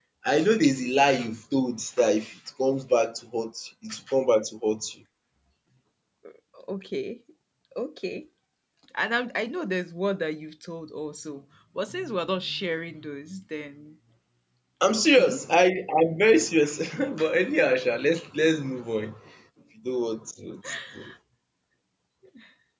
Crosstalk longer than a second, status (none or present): none